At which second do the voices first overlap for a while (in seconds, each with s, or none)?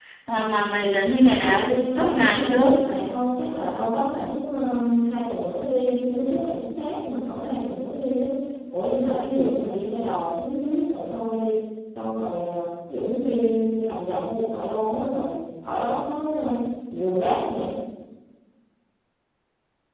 1.4 s